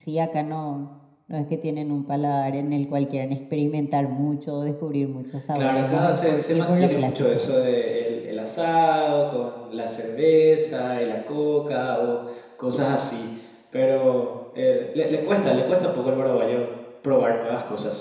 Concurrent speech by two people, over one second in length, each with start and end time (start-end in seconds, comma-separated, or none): 5.5-7.5